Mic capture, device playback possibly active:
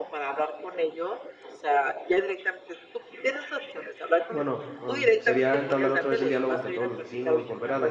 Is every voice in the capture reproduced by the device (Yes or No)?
No